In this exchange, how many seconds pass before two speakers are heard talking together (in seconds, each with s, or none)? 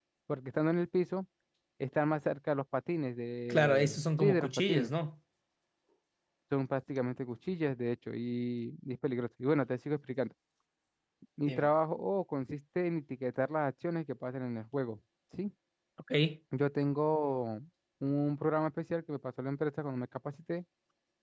3.5 s